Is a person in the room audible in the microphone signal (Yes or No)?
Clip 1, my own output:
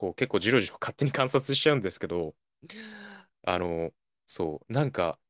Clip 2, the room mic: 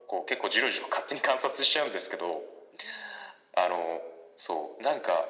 No